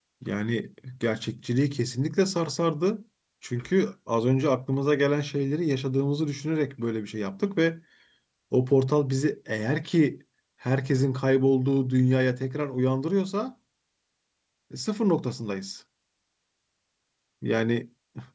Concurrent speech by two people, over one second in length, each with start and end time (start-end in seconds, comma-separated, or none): none